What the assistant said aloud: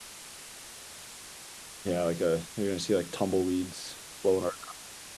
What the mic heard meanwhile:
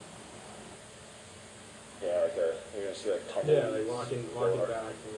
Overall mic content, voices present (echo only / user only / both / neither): both